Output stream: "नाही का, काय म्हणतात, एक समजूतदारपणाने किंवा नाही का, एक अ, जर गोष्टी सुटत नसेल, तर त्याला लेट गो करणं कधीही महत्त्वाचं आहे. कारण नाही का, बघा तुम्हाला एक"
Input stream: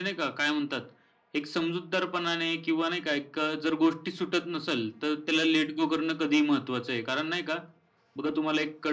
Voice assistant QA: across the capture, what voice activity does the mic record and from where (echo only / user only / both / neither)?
echo only